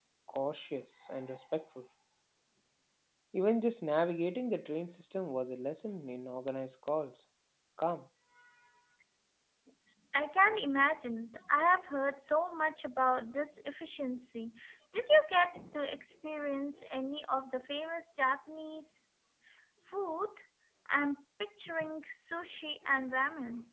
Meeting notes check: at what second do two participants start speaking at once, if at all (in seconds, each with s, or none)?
none